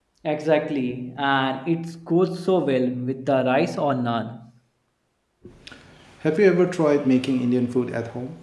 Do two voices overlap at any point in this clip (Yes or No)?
No